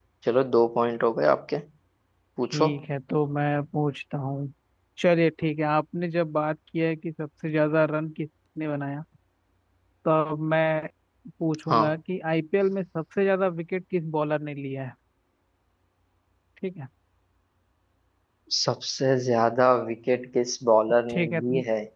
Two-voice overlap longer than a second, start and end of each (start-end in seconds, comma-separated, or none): none